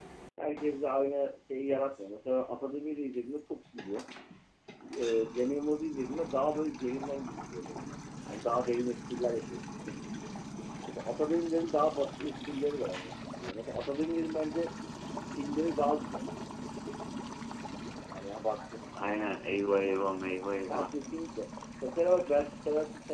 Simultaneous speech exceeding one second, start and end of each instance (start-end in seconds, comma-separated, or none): none